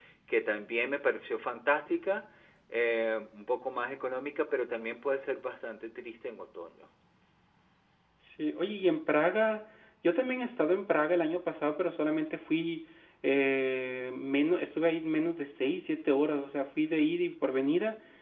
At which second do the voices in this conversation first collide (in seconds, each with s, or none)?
none